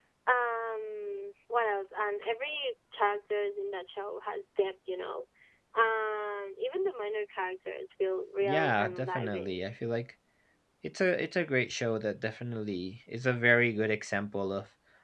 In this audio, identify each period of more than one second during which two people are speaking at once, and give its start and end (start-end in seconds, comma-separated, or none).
8.4-9.7